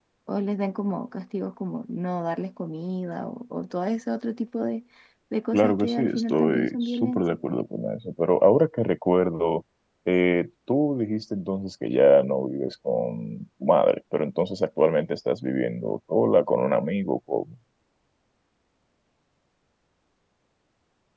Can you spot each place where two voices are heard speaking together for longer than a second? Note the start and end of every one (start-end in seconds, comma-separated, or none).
5.5-7.4